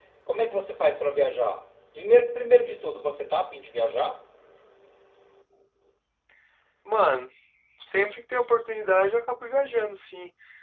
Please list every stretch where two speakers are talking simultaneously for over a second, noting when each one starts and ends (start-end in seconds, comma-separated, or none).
none